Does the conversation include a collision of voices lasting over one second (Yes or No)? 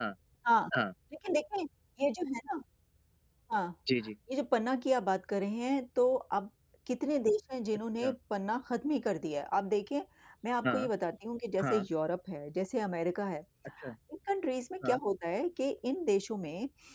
No